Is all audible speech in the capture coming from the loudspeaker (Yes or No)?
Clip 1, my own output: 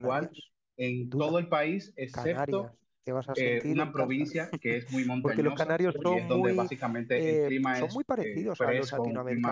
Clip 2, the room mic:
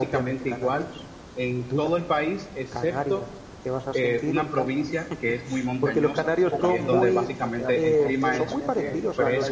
No